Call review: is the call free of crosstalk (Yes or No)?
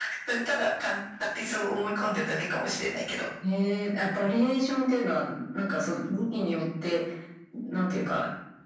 Yes